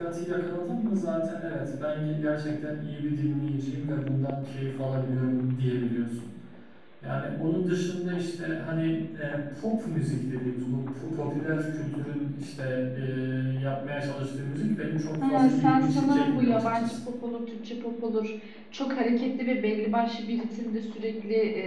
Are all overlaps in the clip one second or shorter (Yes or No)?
No